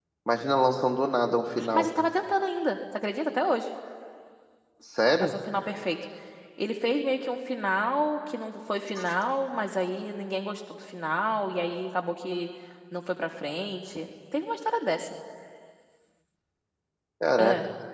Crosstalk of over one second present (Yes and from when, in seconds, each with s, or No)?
No